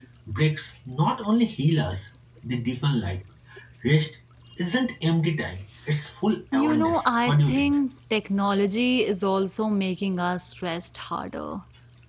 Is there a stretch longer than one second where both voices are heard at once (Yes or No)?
Yes